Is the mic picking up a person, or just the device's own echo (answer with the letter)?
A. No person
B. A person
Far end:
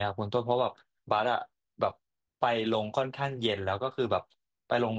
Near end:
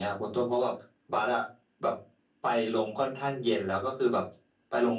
A